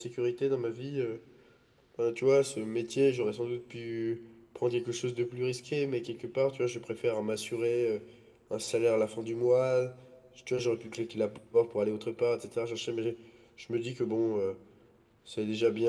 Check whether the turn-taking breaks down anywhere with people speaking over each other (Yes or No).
No